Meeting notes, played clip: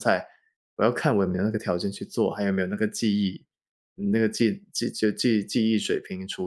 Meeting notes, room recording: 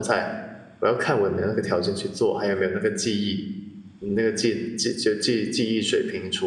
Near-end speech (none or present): none